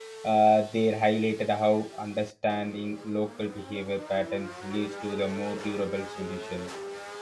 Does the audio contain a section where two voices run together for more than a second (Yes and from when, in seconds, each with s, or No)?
No